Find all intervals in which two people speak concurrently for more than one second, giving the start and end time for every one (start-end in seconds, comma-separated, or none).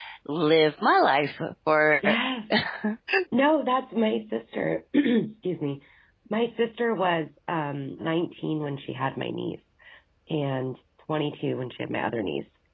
none